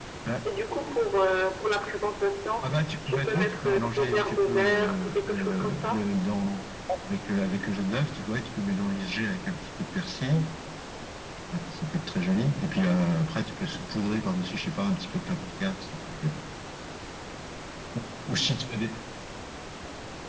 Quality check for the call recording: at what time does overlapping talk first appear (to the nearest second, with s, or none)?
3 s